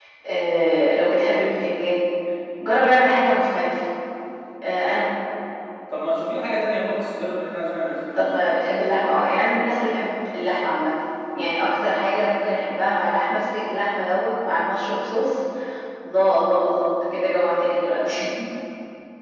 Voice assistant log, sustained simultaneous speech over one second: none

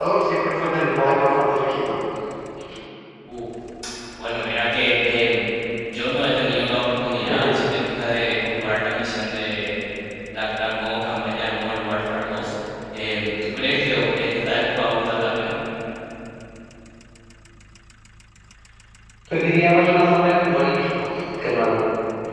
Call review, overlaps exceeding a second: none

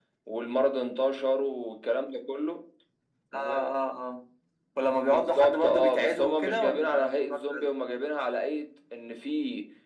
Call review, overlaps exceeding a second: present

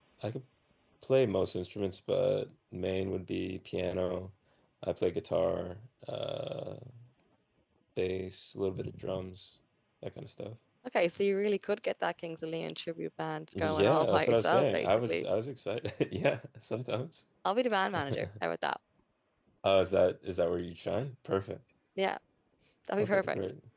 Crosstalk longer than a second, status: present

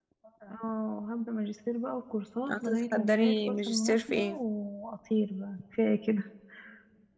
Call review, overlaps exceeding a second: present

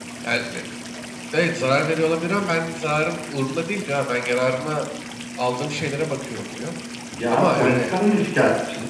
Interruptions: present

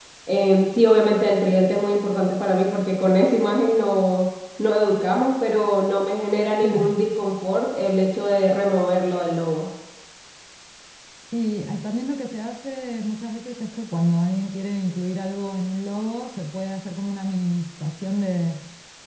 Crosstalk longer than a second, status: none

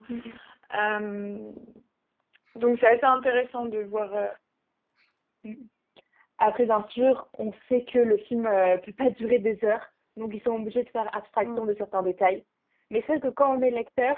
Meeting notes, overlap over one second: none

